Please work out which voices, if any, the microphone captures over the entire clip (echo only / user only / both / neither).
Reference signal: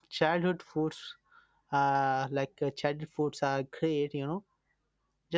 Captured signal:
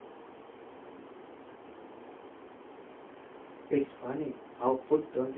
user only